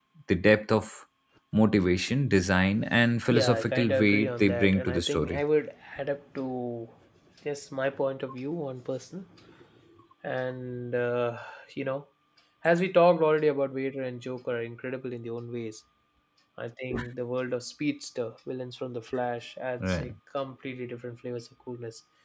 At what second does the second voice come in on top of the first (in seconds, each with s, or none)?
3.3 s